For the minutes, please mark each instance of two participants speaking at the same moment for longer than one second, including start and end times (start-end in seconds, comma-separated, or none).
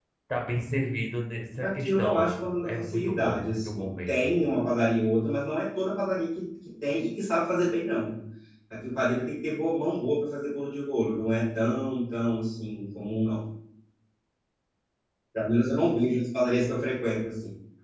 1.6-4.4